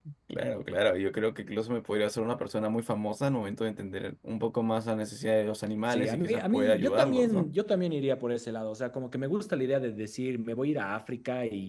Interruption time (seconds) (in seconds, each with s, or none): 5.9 s